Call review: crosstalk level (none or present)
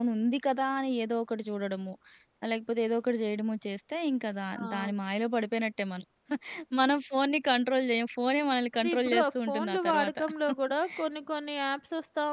present